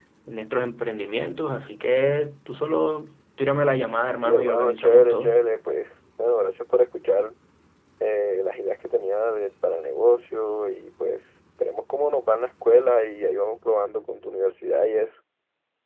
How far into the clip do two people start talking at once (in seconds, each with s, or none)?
4.1 s